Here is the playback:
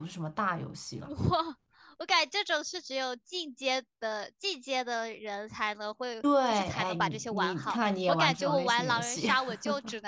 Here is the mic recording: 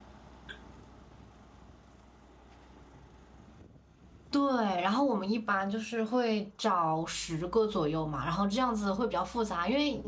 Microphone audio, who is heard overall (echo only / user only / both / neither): user only